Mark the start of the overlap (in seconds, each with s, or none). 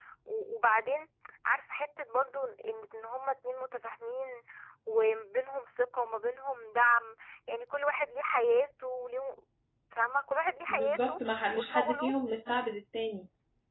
10.7 s